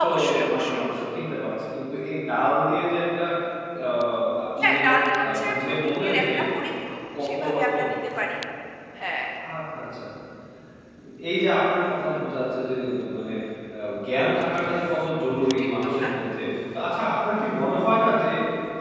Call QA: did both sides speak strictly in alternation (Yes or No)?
No